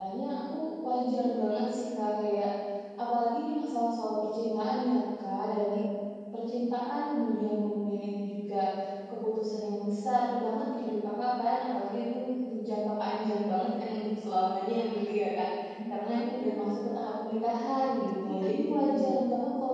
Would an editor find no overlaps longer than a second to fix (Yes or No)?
No